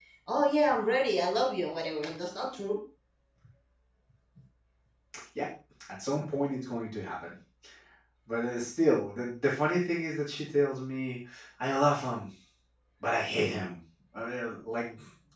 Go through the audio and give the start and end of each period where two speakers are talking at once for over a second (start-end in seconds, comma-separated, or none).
none